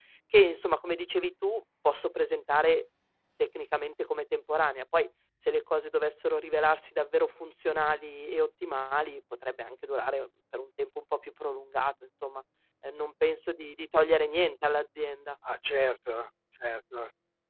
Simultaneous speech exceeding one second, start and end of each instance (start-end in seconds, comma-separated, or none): none